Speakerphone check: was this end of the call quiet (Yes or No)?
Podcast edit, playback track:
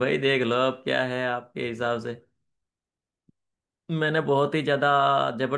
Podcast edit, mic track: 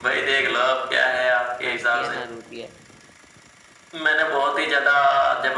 No